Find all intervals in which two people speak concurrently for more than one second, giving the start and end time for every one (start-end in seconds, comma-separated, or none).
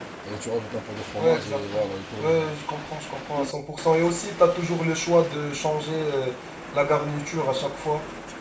1.2-2.5